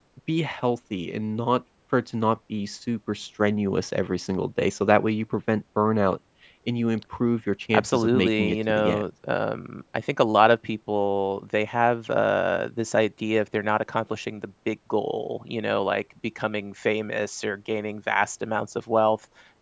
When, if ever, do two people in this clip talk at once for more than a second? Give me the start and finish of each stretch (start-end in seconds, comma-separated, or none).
7.8-9.0